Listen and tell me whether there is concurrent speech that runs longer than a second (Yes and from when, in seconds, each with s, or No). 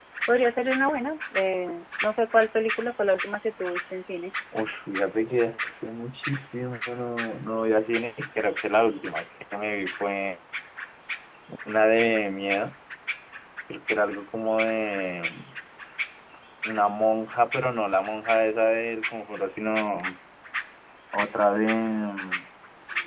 No